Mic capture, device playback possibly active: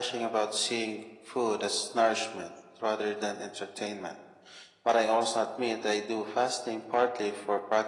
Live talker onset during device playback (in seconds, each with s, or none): none